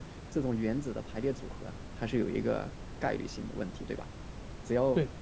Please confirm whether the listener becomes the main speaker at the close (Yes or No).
No